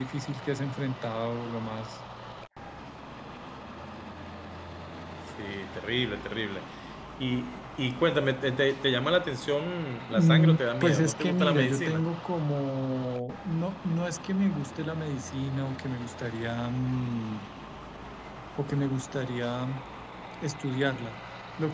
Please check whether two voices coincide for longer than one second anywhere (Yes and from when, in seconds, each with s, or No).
Yes, from 10.1 s